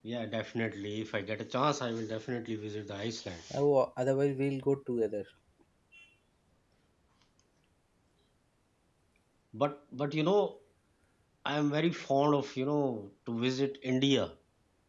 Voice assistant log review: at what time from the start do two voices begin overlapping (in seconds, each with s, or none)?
none